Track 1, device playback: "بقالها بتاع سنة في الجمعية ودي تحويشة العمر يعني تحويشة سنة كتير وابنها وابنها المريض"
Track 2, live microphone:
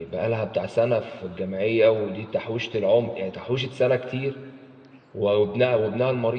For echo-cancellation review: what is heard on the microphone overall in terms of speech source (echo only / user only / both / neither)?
echo only